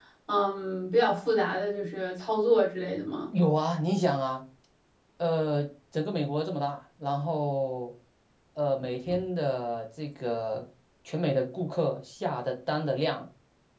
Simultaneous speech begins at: none

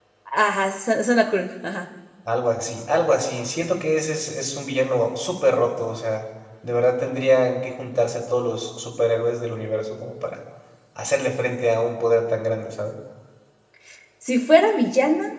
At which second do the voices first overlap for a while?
none

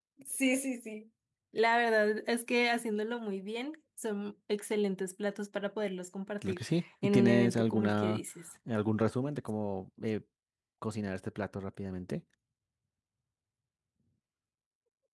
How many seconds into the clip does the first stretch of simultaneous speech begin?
6.4 s

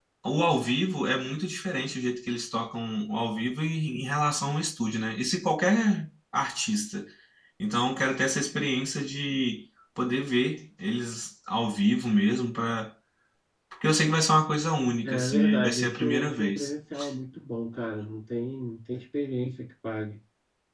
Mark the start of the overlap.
15.0 s

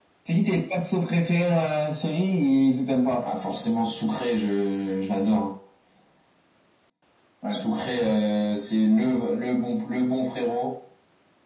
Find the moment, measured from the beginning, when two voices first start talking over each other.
none

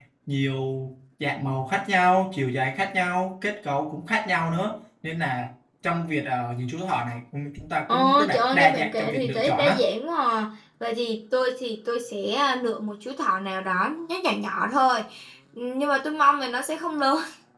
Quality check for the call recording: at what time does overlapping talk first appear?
7.9 s

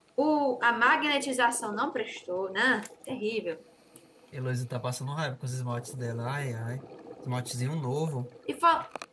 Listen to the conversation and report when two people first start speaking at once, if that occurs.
none

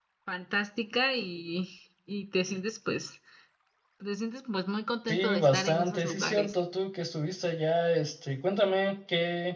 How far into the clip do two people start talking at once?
5.1 s

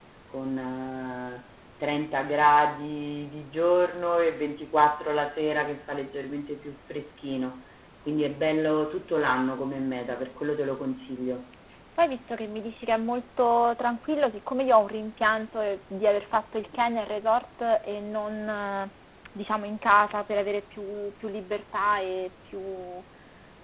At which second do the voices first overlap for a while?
none

